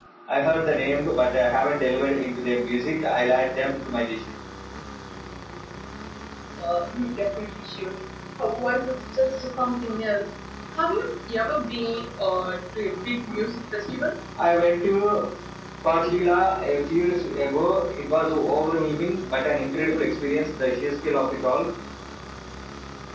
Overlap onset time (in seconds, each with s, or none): none